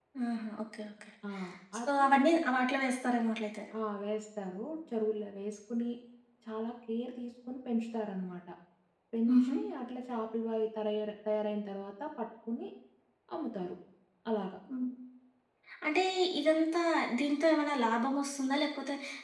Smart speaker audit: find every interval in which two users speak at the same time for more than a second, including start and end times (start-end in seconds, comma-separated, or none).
none